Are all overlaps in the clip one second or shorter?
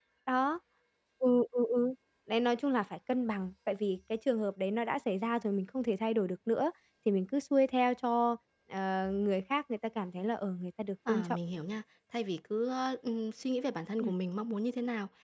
Yes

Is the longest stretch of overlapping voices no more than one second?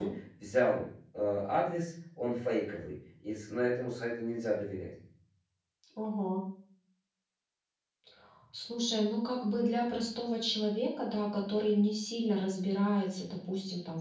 Yes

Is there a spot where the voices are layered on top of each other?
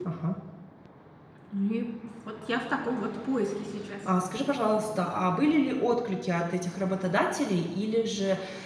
No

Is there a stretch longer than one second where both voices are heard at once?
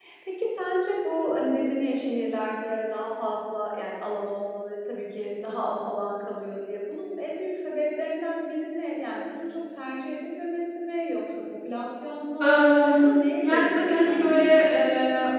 Yes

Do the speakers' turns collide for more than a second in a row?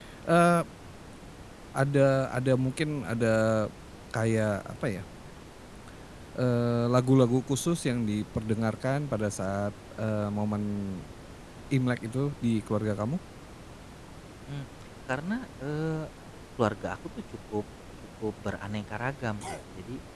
No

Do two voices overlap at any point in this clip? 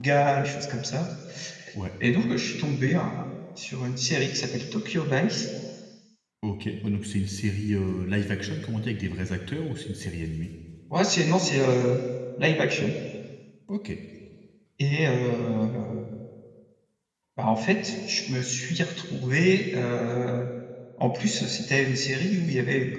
No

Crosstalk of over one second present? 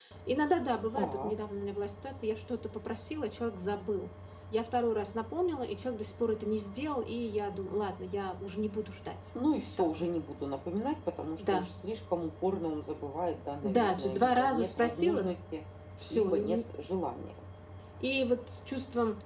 Yes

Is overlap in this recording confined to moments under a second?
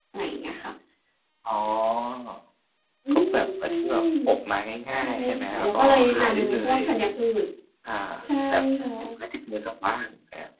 No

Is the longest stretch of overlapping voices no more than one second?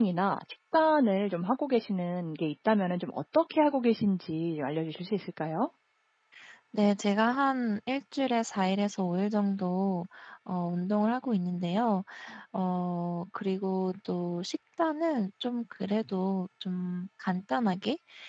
Yes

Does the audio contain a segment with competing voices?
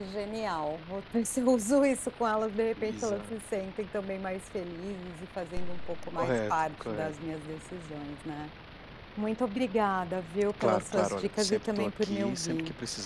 Yes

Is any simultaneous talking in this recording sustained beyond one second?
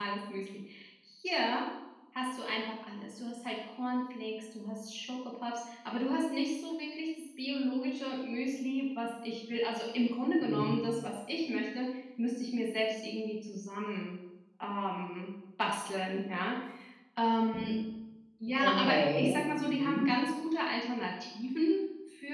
Yes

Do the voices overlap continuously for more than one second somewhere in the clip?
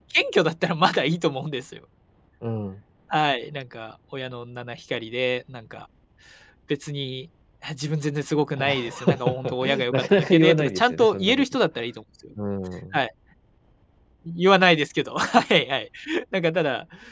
Yes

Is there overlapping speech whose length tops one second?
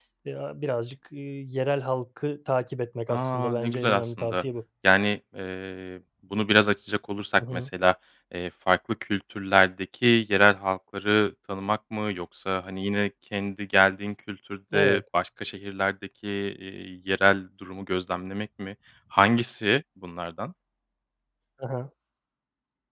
Yes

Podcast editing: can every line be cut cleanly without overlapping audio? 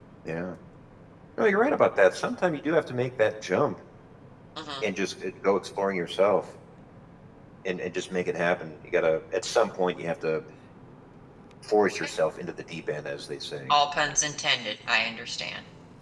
Yes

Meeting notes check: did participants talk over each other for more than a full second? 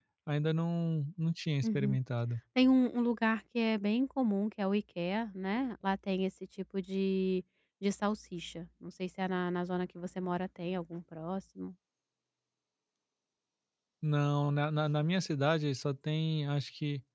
No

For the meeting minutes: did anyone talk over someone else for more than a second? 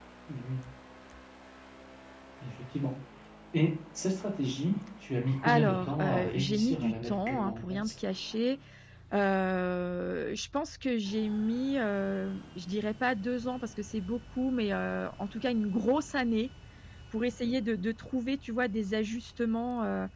Yes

